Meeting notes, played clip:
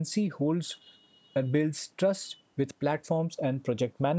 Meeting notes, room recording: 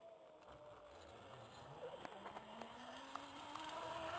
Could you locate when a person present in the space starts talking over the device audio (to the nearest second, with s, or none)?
none